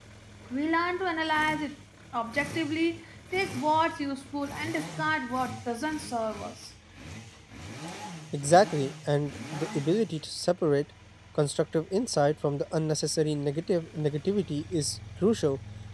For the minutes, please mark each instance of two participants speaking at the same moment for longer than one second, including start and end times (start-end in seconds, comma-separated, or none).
none